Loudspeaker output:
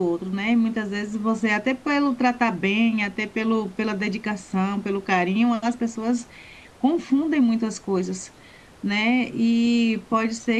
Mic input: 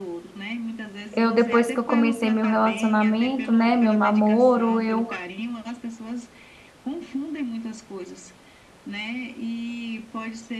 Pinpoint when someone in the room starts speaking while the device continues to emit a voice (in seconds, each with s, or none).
1.1 s